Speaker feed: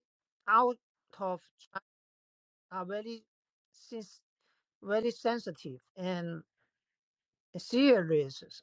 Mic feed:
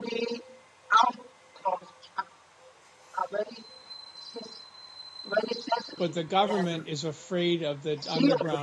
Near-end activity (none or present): present